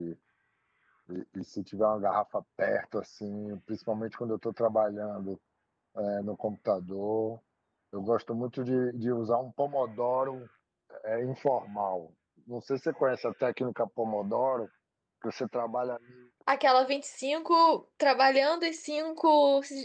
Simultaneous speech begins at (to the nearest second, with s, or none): none